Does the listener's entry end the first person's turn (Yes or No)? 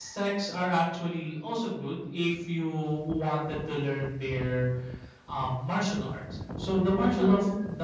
No